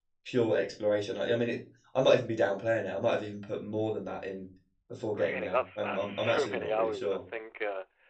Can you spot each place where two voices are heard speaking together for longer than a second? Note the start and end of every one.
5.1-7.2

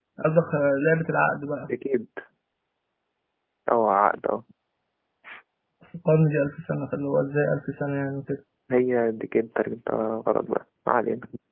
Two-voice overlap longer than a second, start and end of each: none

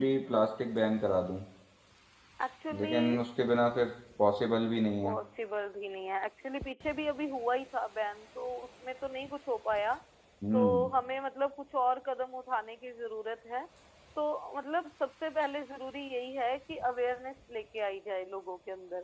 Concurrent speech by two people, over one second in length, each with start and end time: none

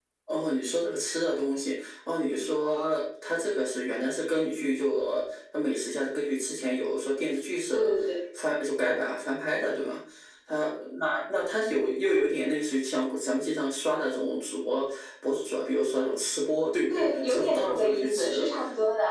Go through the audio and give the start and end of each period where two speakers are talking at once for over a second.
16.9-18.4

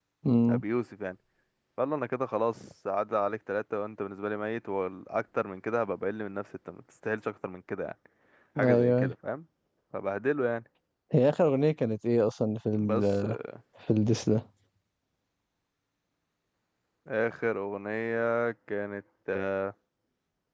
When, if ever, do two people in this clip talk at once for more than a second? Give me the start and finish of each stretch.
none

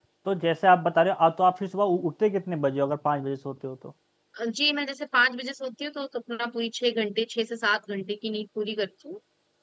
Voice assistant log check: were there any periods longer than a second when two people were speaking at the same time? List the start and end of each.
none

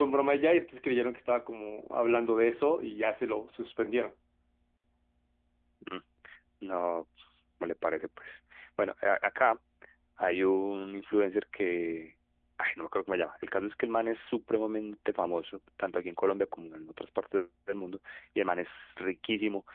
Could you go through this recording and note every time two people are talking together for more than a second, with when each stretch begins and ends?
none

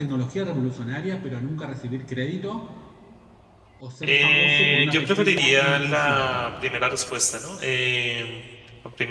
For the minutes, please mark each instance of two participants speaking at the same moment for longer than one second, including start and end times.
4.0-6.2

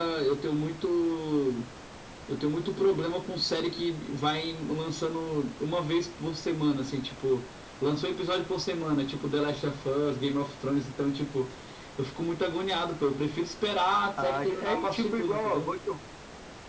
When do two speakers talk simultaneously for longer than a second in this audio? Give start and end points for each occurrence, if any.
14.2-15.7

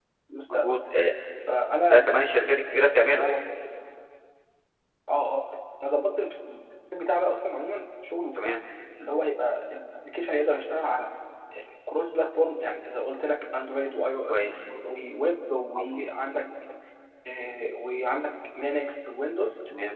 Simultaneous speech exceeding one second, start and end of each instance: none

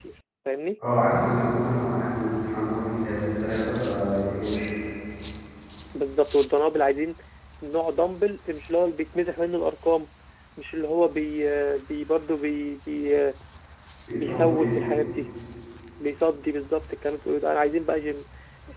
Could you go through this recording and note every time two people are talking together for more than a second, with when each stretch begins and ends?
none

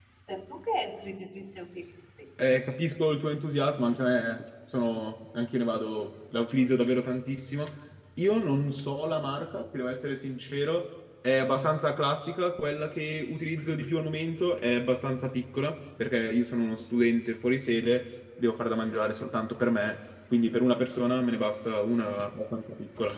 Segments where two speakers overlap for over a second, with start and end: none

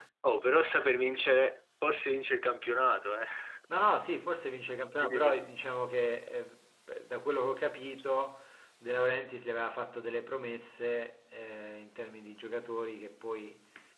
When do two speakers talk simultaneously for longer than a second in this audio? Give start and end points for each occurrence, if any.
none

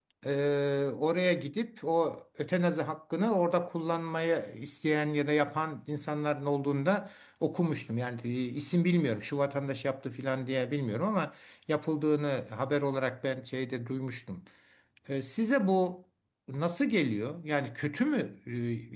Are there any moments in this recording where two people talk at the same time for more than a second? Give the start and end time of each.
none

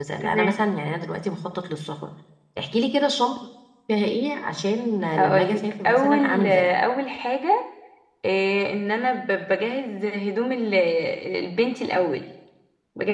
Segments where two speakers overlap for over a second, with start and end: 5.2-6.5

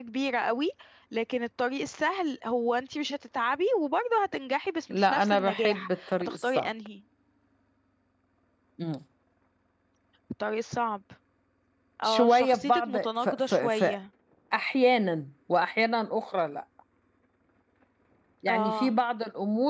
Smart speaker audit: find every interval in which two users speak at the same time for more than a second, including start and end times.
4.9-6.7, 12.0-13.9

